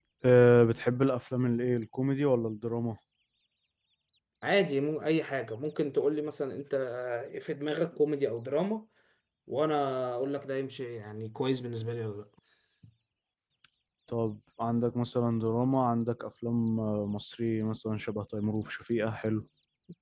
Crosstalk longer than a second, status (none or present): none